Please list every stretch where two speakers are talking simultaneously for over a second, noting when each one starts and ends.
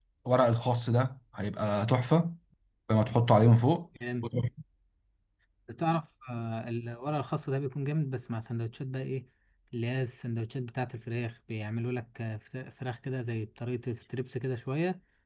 none

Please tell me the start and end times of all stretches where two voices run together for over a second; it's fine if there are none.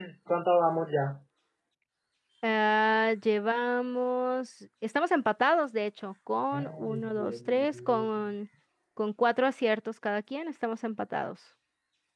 6.5-8.1

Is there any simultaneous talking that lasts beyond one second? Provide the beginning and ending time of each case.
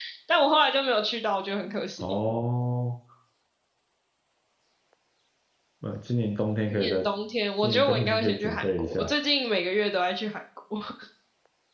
7.6-9.1

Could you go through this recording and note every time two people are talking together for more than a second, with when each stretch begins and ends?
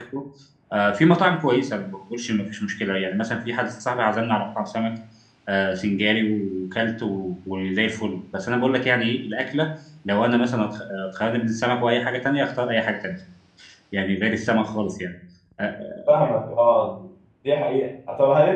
none

